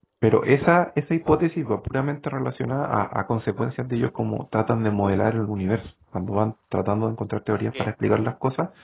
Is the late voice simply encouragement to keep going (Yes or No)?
Yes